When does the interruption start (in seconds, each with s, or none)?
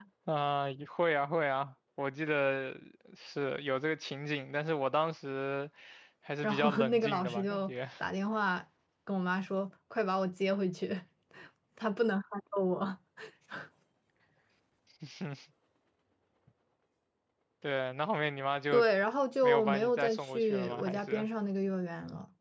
6.4 s